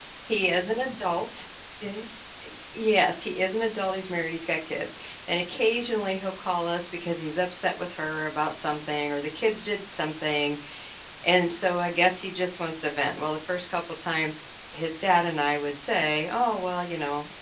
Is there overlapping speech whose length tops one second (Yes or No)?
No